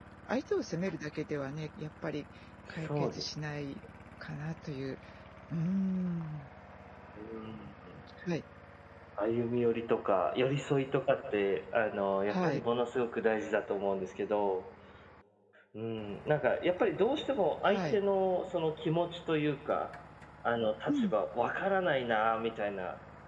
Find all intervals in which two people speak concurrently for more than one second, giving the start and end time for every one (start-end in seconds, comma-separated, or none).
none